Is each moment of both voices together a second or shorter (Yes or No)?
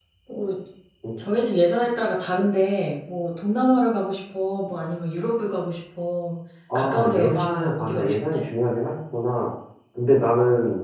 No